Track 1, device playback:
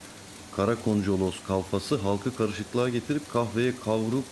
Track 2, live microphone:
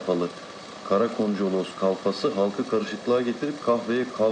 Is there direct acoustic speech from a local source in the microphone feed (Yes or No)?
No